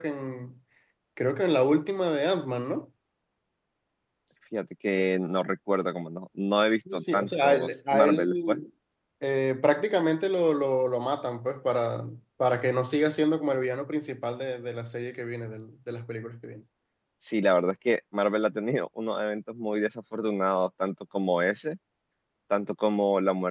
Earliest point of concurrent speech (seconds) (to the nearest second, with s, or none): 7 s